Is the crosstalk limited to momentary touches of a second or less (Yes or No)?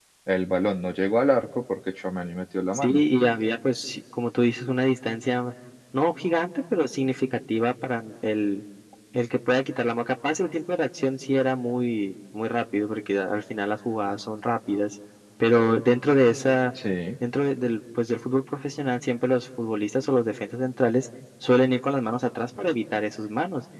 Yes